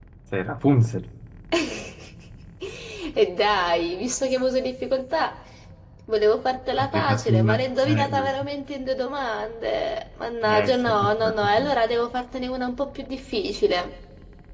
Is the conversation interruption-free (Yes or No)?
No